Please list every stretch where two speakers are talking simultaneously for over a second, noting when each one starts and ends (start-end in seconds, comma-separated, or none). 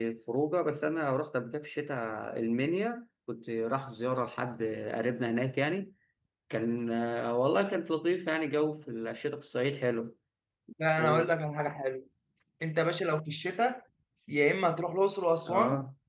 none